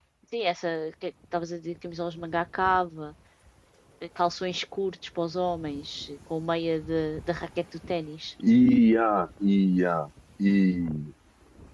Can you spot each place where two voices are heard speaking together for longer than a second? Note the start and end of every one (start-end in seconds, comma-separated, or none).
none